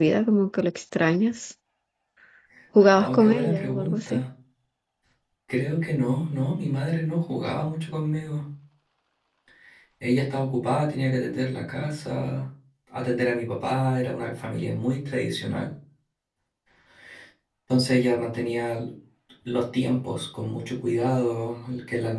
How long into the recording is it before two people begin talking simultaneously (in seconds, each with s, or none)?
2.9 s